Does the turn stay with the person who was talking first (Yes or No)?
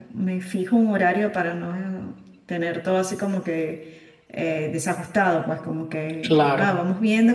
Yes